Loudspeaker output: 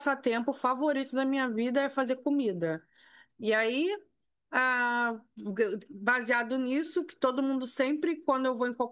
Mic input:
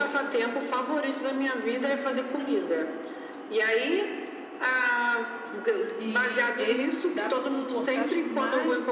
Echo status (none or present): present